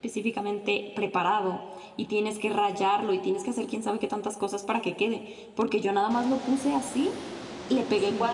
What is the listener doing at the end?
listening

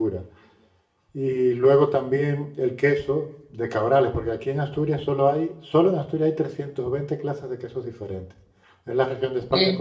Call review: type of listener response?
listening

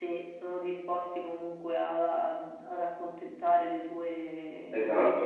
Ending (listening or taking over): taking over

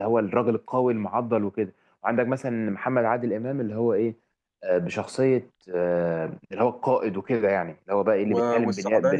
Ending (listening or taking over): taking over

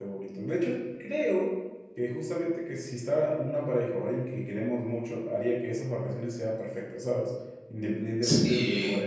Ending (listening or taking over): listening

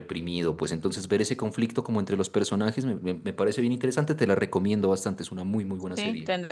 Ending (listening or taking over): taking over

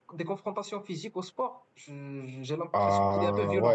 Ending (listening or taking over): taking over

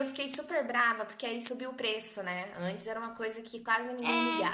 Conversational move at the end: taking over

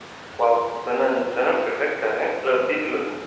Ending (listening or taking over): taking over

